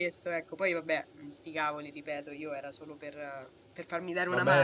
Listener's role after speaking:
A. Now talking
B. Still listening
A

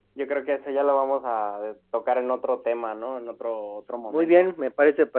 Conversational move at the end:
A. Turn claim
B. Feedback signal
A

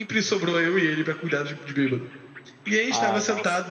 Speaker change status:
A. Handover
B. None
B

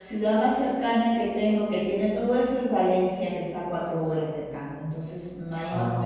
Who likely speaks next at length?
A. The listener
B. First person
B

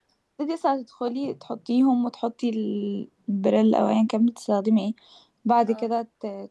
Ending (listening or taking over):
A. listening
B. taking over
A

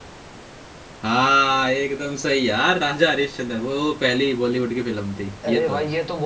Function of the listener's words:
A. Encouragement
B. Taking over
B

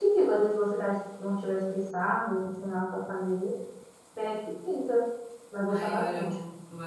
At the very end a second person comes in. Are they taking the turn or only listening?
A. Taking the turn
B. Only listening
A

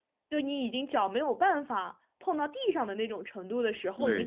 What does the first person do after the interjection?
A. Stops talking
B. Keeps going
A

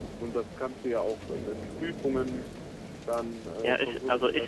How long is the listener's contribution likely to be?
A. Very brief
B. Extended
B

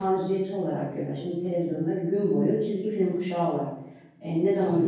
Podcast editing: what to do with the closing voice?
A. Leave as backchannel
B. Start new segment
A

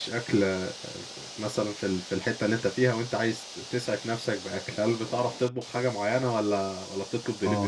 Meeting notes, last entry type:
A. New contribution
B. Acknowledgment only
A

